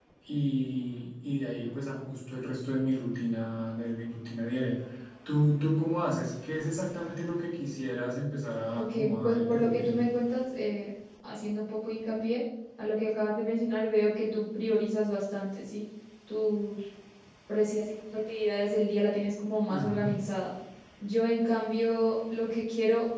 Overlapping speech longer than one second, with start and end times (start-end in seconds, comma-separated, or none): 8.7-10.0